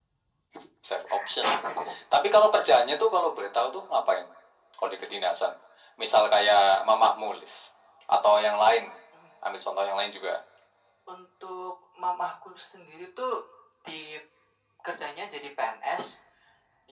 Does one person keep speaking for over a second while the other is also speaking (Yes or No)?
No